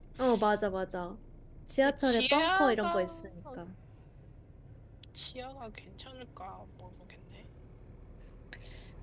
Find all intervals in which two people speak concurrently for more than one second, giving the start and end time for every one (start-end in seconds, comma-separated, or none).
1.8-3.1